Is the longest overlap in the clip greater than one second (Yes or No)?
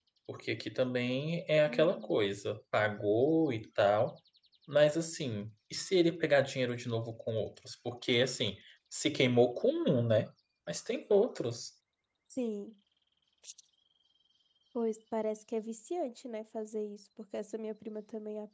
No